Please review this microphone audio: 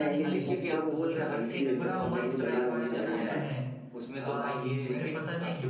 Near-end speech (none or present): present